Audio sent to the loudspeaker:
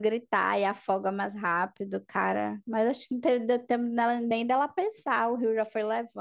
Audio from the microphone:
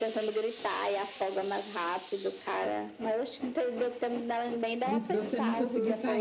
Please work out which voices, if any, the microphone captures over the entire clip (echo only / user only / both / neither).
both